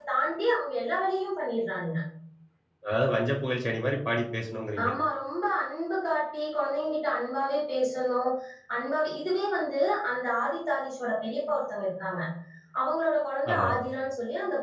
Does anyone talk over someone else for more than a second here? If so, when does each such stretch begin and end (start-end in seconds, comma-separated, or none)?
none